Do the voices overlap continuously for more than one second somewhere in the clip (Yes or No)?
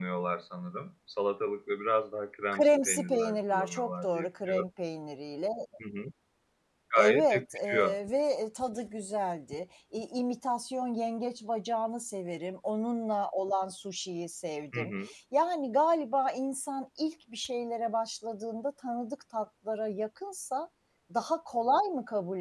Yes